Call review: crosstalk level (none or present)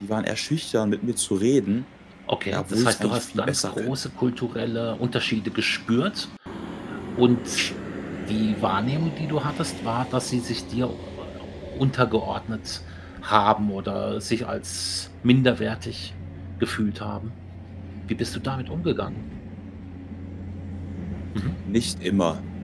present